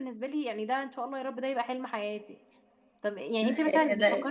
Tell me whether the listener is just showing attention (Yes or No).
Yes